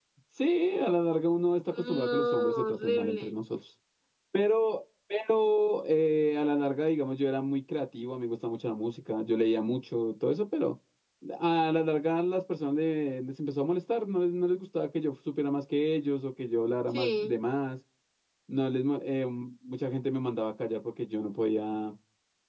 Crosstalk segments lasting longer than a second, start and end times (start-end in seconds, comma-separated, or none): 1.8-3.4